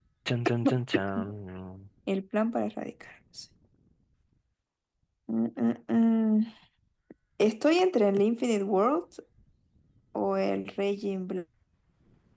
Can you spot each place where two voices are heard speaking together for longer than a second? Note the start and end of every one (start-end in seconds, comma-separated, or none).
none